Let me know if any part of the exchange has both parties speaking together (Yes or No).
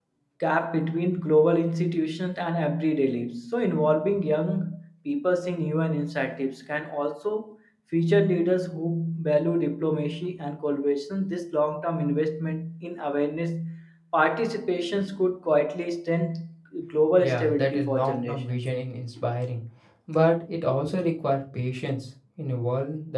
Yes